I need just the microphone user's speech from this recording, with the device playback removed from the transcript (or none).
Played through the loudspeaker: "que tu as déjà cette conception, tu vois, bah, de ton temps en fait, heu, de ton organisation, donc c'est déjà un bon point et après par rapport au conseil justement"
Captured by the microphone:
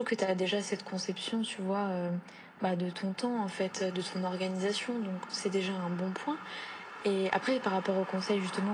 none